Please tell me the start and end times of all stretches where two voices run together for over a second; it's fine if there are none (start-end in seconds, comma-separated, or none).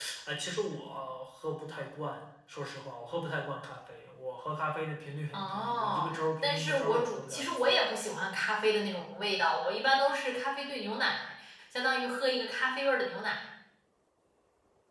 5.3-7.8